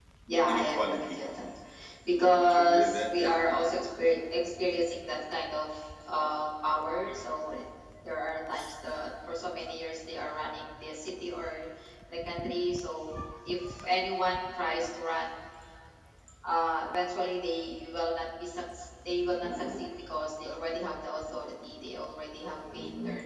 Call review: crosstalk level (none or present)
present